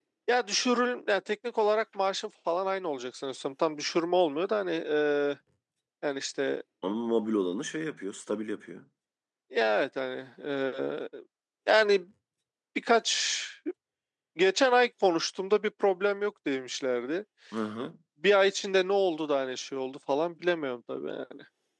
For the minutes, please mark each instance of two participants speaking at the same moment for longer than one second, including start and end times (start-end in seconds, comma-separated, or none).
none